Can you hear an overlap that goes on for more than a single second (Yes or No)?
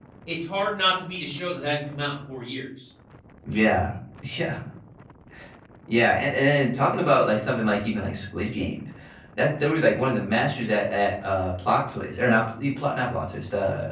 No